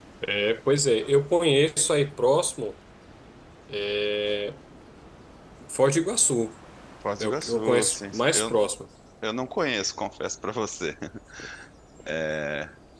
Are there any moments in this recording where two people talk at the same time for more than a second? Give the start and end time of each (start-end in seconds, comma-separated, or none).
7.2-8.5